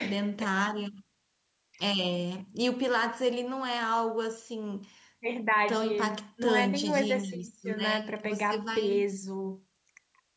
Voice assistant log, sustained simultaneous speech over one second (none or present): present